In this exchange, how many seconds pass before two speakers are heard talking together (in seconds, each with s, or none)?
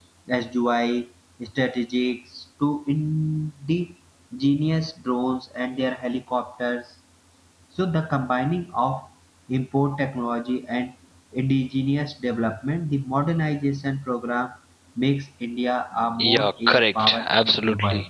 16.2 s